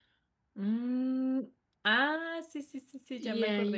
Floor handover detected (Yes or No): Yes